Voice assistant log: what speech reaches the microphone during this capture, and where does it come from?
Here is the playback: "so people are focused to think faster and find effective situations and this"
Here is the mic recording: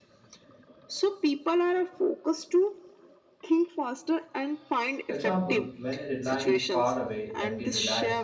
both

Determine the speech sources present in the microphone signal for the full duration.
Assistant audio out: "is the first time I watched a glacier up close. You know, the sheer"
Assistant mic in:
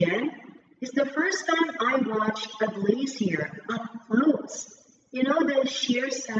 echo only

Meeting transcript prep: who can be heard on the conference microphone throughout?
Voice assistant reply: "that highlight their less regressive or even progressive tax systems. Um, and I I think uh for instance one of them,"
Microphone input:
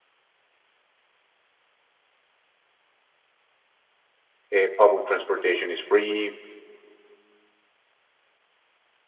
user only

